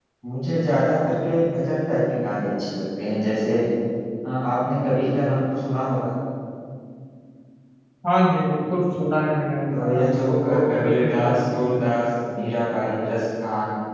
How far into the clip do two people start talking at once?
9.7 s

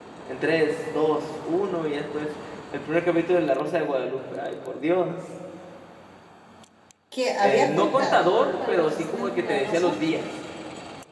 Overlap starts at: 7.4 s

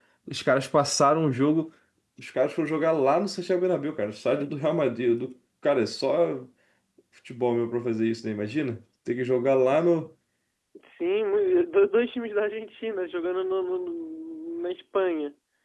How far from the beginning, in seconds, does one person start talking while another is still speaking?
none

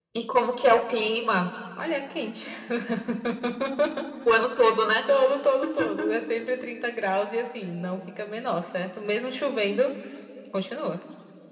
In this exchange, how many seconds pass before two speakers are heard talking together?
none

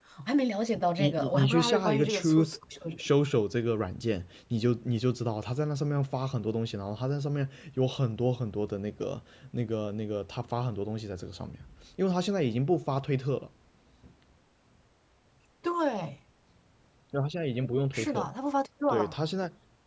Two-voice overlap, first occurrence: 1.0 s

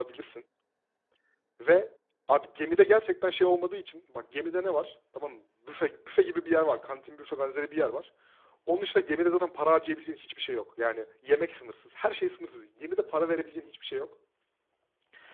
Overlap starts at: none

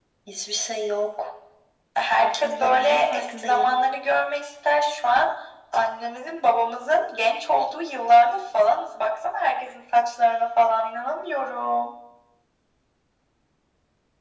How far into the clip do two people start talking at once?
2.2 s

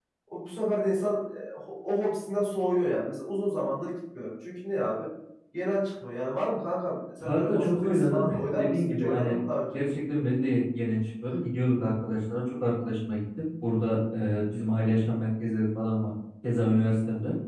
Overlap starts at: 7.2 s

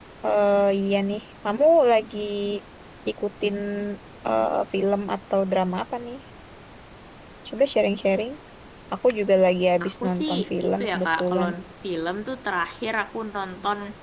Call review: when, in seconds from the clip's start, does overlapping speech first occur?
9.8 s

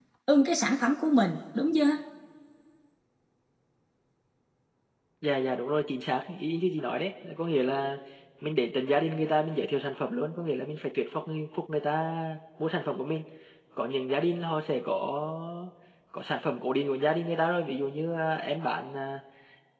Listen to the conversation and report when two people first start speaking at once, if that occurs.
none

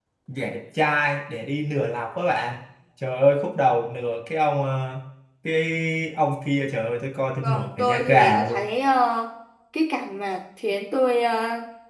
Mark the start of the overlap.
7.4 s

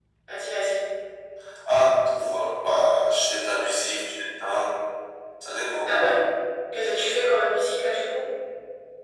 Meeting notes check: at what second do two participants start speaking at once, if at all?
none

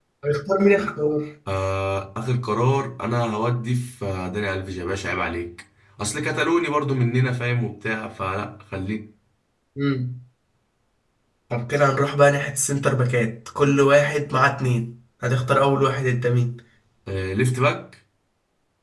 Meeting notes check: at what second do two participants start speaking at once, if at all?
none

